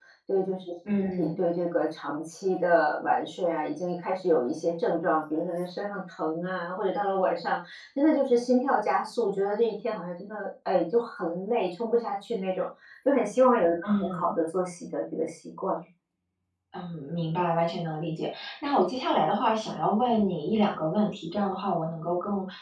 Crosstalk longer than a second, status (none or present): none